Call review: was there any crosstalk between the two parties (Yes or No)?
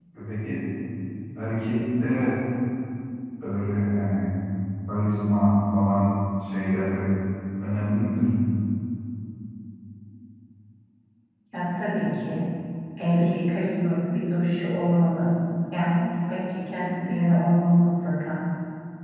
No